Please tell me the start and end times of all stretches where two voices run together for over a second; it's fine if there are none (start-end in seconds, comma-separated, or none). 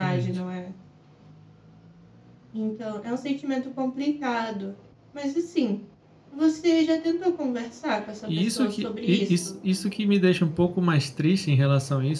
8.3-9.6